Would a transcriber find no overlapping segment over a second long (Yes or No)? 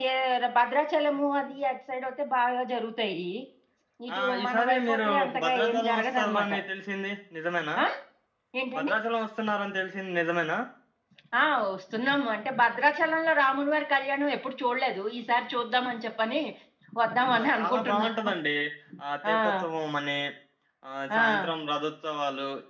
No